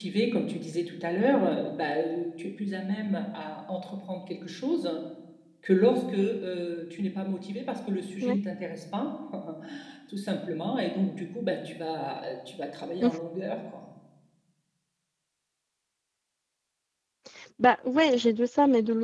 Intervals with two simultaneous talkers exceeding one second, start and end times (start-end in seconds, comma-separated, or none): none